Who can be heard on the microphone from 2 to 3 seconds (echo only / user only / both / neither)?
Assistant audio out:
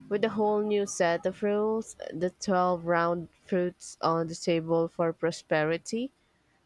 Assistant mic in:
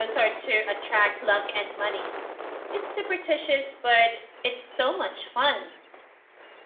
user only